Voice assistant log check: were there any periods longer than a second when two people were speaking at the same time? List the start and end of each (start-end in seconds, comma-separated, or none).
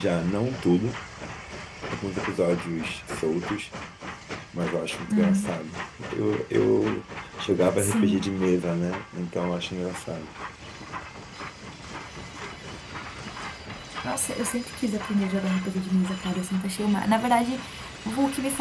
none